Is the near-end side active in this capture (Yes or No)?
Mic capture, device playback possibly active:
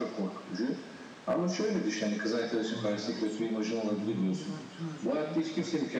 Yes